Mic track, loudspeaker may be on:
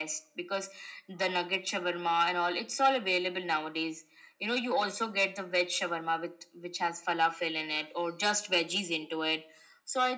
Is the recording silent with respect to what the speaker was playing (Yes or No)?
No